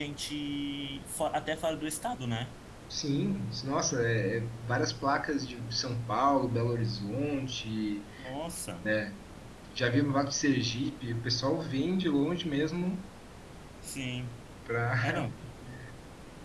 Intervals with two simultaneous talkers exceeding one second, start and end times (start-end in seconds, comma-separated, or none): none